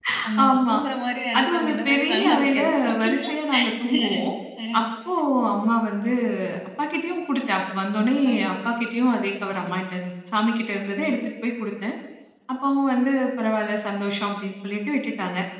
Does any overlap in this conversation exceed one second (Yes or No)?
Yes